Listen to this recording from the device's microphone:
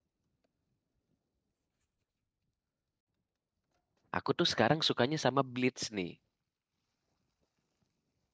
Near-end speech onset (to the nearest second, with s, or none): 4 s